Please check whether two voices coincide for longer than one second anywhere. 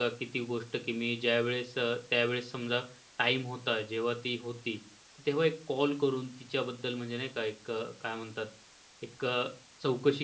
No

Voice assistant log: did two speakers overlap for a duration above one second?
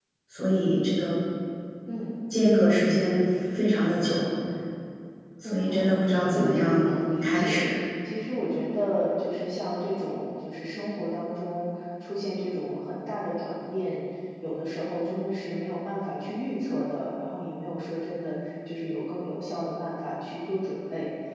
Yes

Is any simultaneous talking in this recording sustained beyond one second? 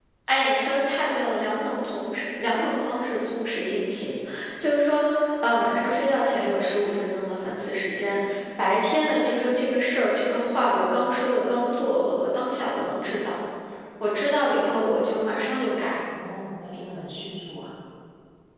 No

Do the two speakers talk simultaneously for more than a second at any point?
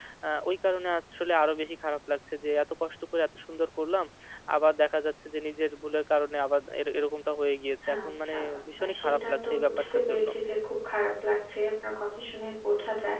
Yes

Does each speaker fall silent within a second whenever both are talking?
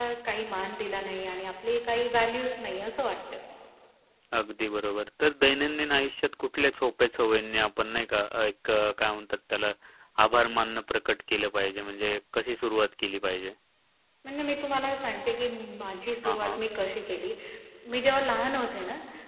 Yes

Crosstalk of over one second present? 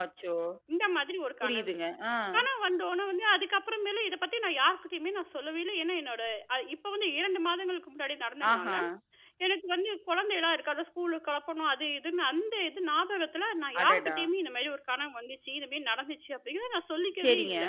No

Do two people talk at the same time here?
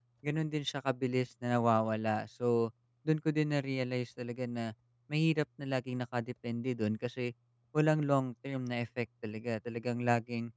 No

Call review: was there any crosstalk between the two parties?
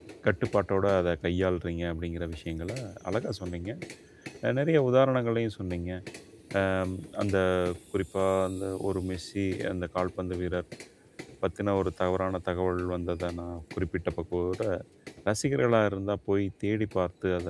No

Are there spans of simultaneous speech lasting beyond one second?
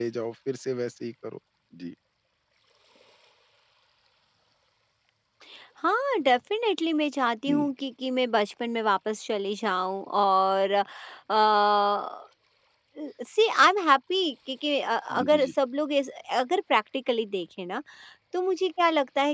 No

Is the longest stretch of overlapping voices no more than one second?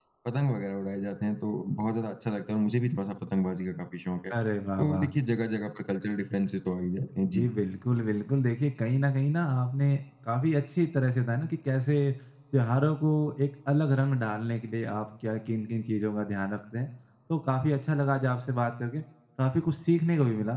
Yes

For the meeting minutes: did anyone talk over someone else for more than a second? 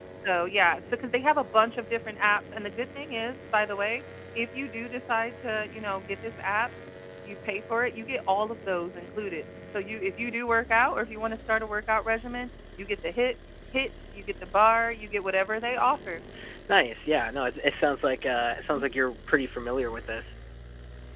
No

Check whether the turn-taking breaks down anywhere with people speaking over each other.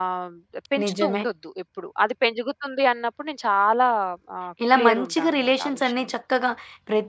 Yes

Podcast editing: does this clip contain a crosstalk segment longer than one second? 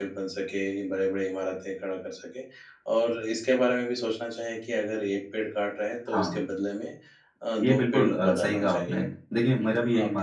Yes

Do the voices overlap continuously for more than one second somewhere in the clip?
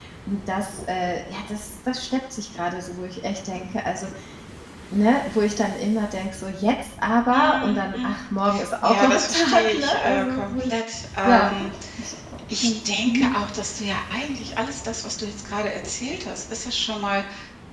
Yes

